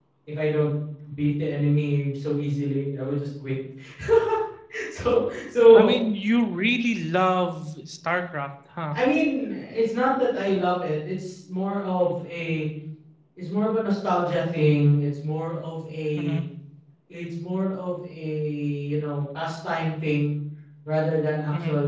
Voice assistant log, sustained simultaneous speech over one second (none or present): none